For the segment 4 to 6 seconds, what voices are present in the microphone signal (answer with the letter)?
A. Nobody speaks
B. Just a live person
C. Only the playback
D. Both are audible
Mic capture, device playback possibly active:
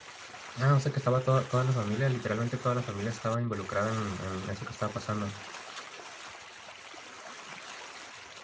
B